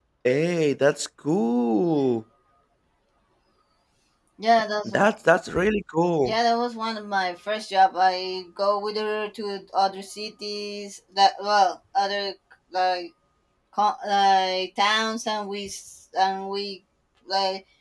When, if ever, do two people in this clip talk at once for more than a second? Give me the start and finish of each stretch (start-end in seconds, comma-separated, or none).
none